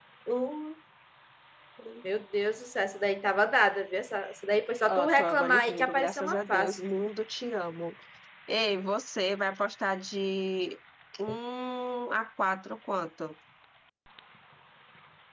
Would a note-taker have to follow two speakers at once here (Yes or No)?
Yes